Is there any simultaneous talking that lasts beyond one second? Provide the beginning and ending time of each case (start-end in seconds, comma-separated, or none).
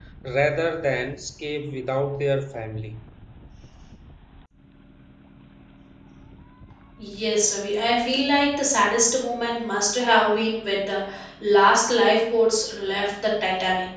none